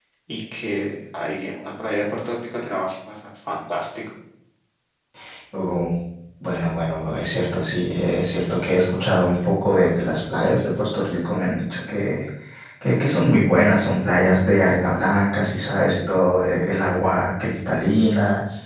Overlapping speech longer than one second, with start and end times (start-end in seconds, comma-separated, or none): none